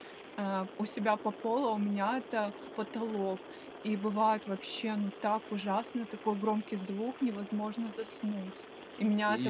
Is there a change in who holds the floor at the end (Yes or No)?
No